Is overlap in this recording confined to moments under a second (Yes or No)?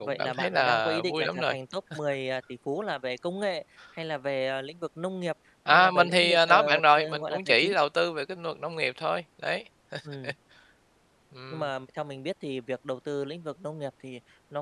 No